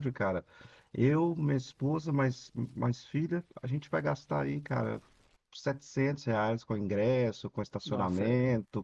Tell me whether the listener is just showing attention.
Yes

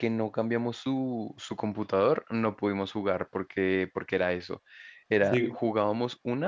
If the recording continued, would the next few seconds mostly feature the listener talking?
No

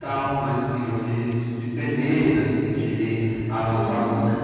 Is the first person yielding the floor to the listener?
No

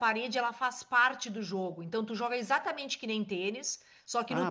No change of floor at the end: No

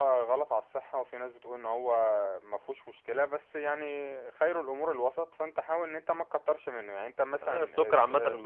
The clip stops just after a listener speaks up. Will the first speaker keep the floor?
No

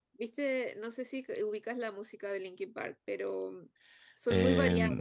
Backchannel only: No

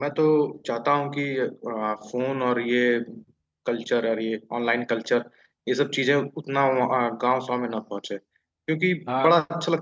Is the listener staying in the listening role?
Yes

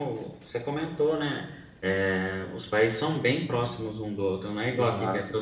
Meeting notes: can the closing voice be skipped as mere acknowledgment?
Yes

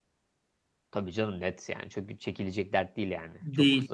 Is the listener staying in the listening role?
No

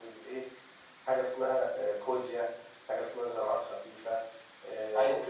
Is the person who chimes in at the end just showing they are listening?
Yes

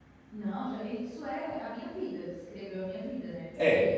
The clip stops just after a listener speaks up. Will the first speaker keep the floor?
Yes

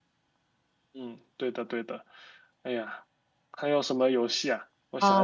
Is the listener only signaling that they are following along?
No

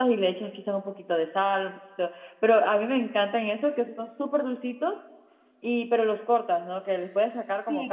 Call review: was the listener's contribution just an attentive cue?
No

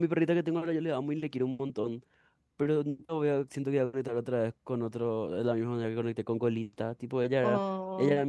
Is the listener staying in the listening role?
Yes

